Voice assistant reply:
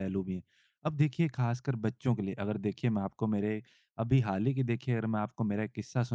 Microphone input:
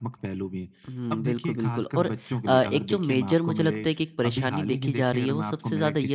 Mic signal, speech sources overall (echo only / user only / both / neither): both